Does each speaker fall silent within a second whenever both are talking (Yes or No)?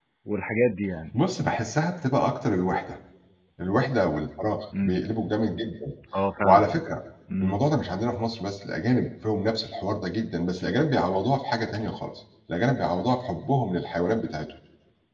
Yes